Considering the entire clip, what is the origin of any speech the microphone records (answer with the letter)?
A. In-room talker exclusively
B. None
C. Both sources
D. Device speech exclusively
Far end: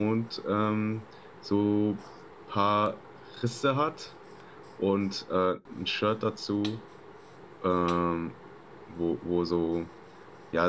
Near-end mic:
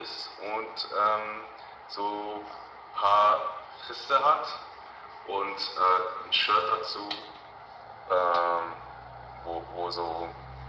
D